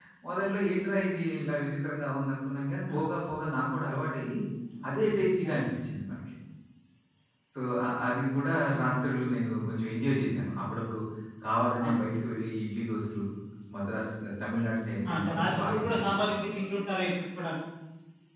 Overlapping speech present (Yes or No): Yes